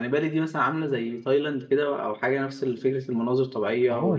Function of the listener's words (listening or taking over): taking over